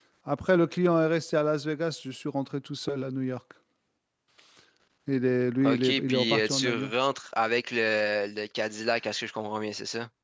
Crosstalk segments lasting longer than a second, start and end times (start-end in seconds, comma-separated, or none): 5.6-6.9